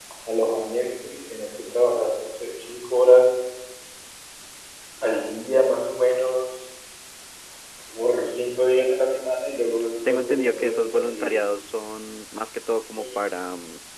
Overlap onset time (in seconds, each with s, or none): 10.1 s